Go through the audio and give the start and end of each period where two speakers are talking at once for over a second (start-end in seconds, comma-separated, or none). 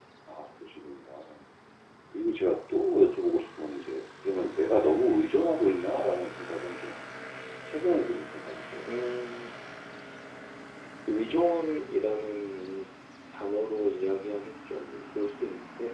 none